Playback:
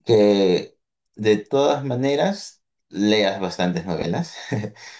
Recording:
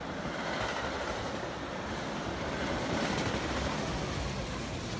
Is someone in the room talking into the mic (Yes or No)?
No